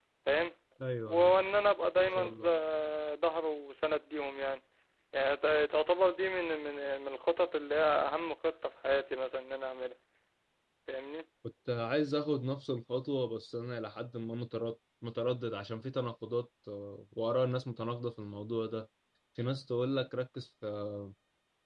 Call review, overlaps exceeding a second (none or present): none